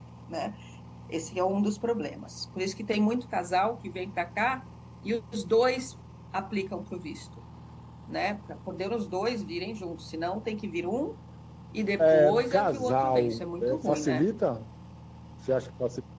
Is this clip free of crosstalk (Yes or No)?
No